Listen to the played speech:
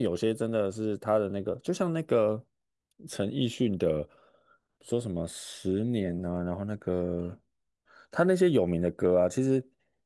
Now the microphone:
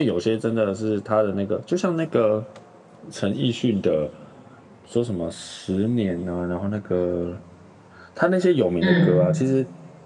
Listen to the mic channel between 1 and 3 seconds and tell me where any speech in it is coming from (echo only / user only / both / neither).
echo only